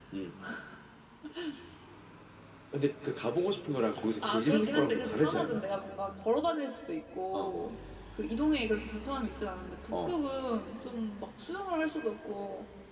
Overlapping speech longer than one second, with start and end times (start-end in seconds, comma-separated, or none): 4.3-5.6